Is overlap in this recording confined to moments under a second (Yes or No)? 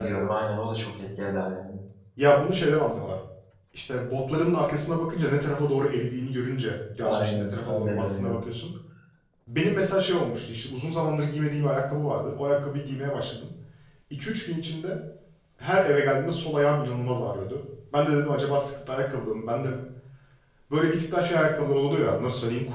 No